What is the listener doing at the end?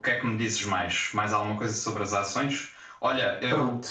listening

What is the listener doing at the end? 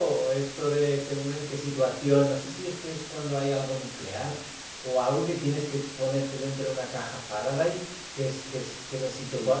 taking over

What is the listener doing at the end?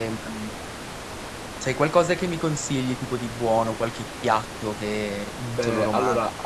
taking over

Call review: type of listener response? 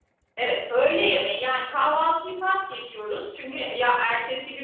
listening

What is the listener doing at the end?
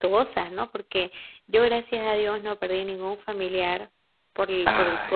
listening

